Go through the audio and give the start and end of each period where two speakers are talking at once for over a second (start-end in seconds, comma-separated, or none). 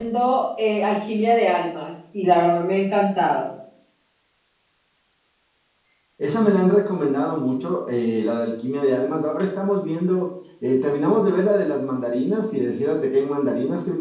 none